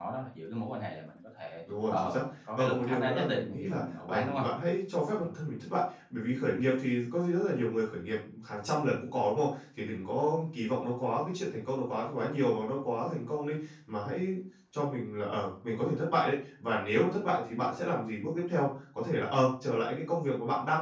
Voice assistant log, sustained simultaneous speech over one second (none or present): present